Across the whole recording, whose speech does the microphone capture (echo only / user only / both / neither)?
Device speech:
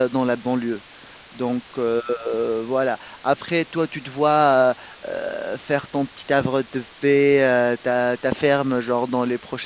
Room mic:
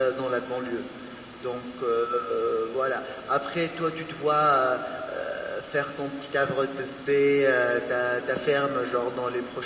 echo only